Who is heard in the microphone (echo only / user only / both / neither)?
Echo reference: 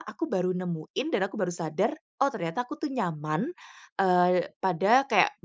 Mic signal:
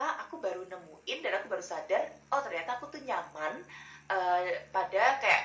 echo only